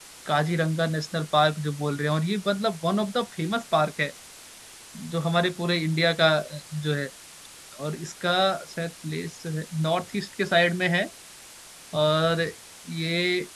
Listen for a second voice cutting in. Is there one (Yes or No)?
No